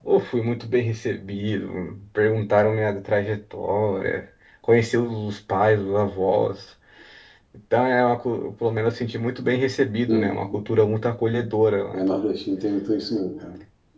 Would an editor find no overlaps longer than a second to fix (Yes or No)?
Yes